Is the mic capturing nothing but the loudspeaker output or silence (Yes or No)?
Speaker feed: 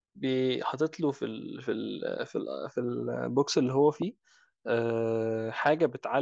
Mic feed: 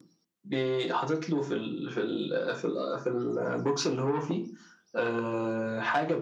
Yes